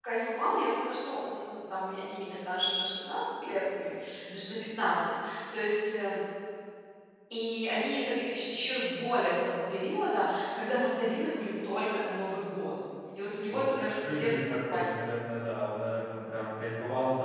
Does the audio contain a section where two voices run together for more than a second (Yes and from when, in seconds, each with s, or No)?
Yes, from 13.5 s